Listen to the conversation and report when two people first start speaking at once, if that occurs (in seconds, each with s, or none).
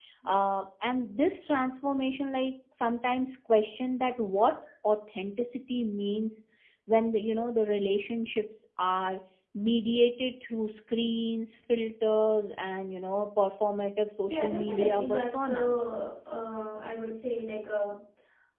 14.3 s